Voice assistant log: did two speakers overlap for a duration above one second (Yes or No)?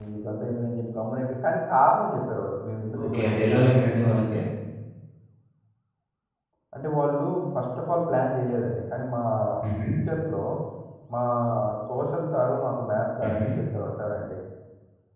Yes